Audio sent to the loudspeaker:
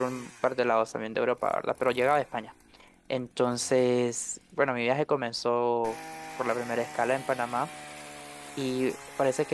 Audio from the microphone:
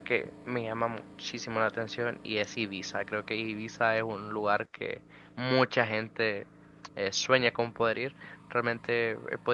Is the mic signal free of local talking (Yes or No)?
No